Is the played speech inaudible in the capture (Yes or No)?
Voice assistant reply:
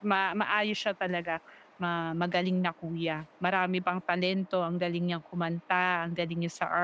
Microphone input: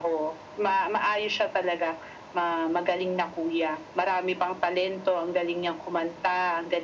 No